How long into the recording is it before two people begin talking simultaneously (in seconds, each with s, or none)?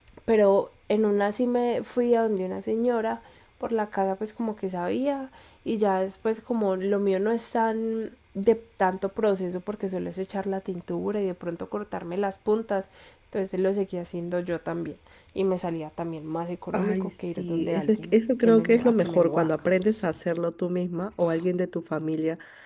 16.7 s